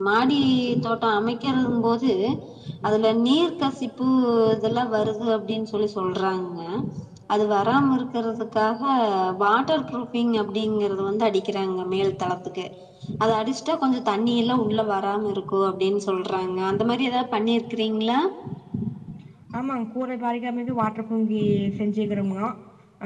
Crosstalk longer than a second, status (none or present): none